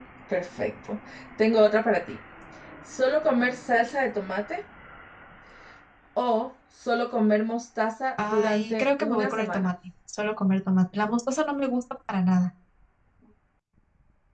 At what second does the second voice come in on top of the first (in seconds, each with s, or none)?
8.2 s